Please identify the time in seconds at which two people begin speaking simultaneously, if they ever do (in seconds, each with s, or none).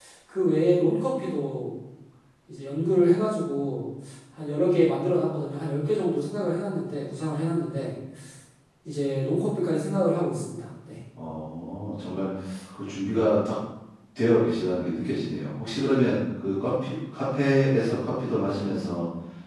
none